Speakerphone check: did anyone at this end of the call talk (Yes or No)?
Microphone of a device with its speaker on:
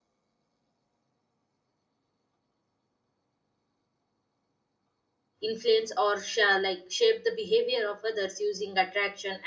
Yes